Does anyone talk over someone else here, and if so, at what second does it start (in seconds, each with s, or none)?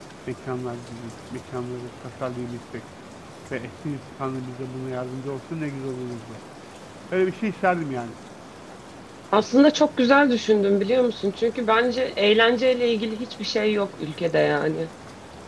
none